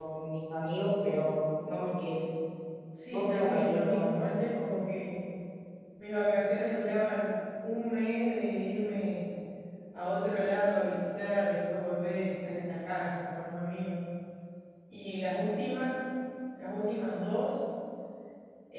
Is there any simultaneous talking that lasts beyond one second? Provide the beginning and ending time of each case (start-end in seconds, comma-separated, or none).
3.1-4.3